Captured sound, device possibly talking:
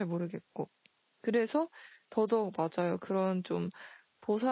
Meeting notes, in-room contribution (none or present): present